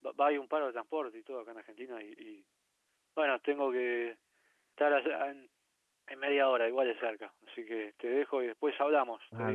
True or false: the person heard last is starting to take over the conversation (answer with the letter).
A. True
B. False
A